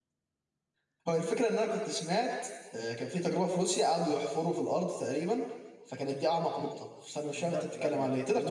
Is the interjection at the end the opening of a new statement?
Yes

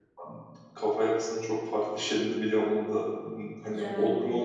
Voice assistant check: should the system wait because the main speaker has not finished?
Yes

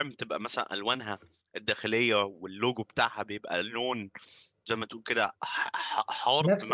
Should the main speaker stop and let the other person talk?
Yes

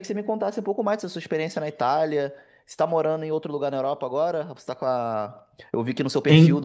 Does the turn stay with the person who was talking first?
Yes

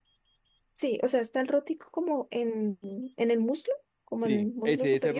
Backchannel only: No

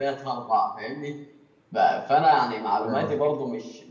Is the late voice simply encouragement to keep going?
Yes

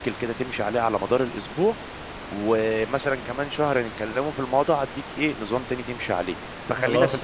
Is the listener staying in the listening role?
Yes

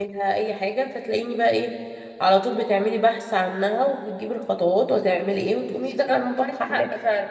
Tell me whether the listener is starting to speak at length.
Yes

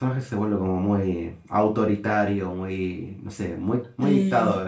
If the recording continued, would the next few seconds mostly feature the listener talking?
Yes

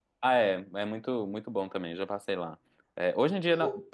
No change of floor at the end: Yes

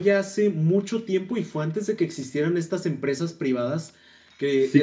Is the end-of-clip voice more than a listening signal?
Yes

